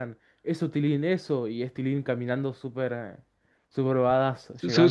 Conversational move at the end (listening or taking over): taking over